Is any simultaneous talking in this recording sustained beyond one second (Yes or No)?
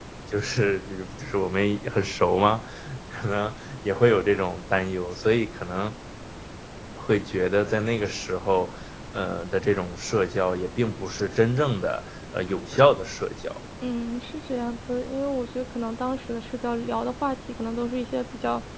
No